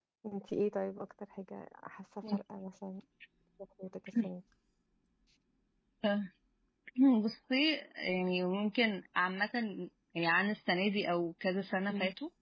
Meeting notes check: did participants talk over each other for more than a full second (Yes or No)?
No